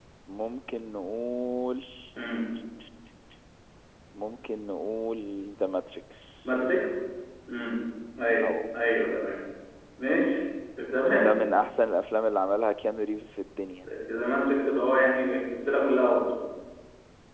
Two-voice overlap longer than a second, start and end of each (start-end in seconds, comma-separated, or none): none